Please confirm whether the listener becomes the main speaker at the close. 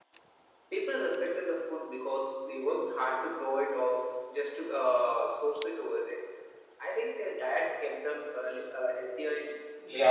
Yes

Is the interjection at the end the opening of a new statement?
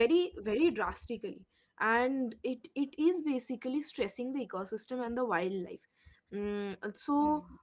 Yes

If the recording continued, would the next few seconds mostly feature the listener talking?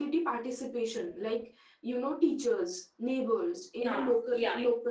No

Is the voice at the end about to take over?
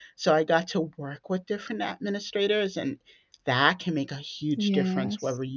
No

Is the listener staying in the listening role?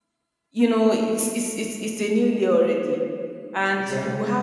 Yes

